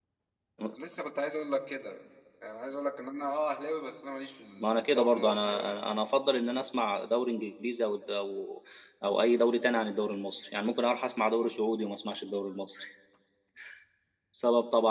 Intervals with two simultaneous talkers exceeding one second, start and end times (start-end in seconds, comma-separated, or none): 4.6-5.8